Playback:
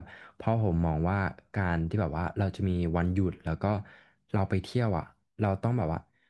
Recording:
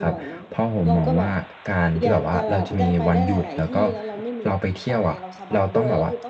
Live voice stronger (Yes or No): No